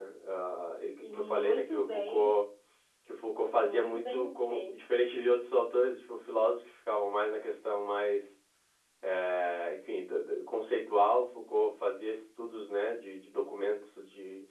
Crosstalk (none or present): present